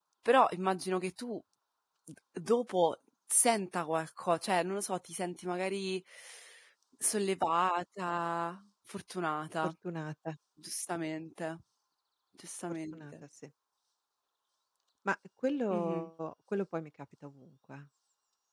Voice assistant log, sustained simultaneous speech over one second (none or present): none